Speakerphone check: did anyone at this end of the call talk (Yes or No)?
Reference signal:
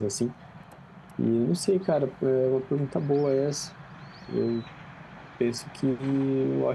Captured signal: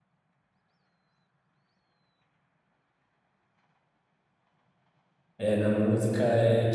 Yes